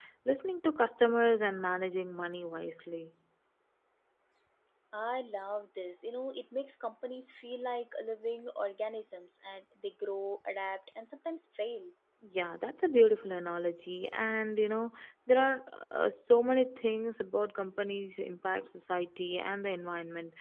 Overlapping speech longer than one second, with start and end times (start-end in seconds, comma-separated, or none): none